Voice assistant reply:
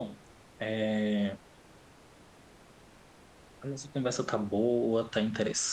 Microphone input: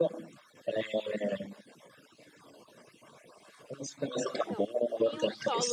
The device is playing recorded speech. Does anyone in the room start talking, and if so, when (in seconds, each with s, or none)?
4.3 s